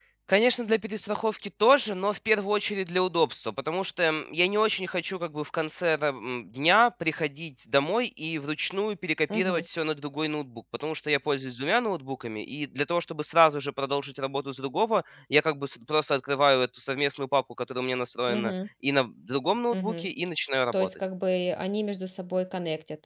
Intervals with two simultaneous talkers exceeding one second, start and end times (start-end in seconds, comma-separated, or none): none